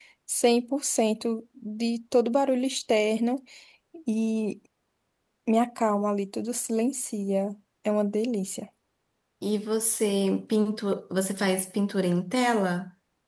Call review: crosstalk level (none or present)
none